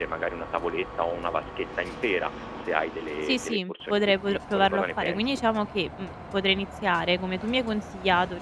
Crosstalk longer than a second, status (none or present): present